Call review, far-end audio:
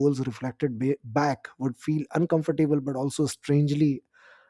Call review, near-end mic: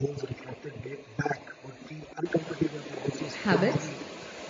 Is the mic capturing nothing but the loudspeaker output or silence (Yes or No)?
No